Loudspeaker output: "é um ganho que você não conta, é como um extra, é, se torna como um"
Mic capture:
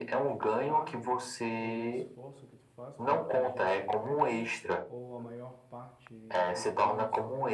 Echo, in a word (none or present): present